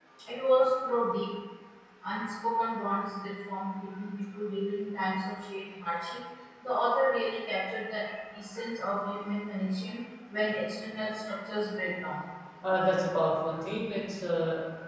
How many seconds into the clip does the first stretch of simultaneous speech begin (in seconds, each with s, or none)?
none